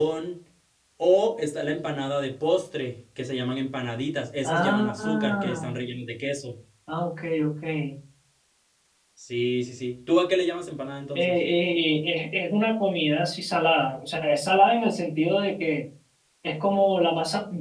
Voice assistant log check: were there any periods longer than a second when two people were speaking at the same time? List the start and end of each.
4.4-5.7

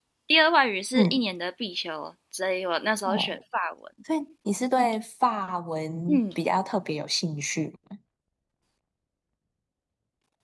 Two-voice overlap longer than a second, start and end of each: none

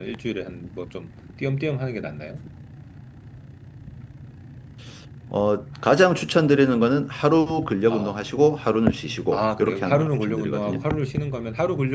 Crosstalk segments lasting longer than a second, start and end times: 9.3-10.8

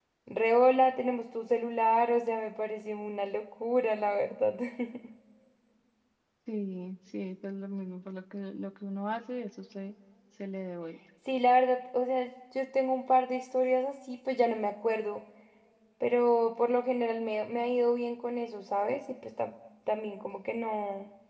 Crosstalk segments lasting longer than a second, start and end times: none

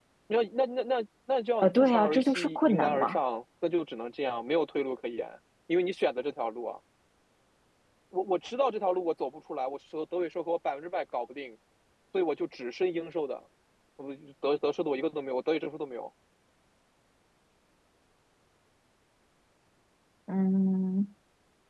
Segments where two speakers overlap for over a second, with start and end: 1.6-3.2

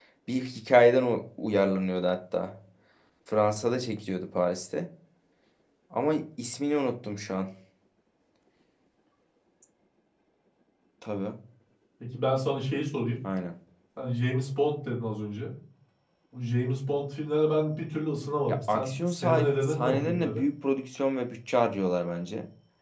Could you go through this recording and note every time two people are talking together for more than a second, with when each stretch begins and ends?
18.5-20.4

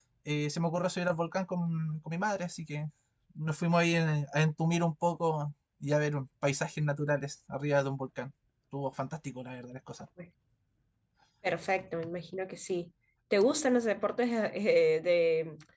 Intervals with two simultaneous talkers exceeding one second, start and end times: none

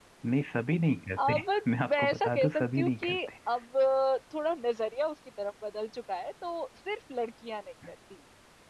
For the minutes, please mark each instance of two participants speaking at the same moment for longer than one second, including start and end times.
1.9-3.3

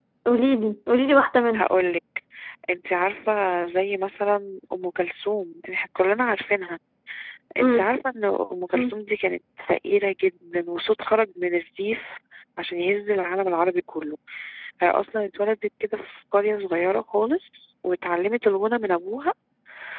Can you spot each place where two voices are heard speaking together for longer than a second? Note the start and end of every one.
none

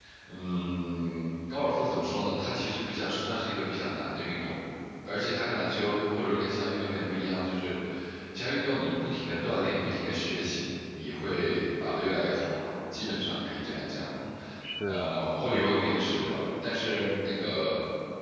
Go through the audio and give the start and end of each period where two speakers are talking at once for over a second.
none

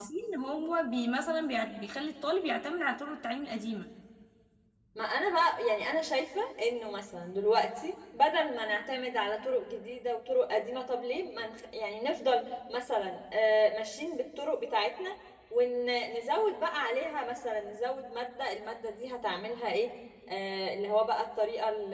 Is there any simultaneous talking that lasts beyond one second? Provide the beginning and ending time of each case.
none

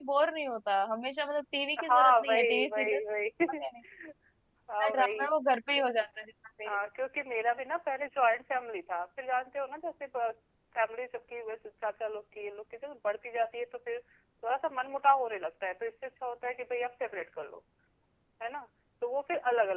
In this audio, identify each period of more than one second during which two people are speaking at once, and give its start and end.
1.8-3.0

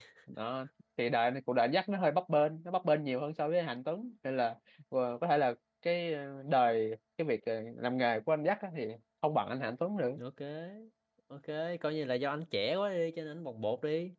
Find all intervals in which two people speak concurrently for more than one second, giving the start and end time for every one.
none

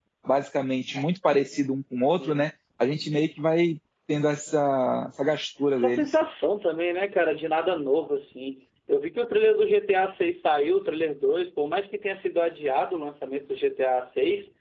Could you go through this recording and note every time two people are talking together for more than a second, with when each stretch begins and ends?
none

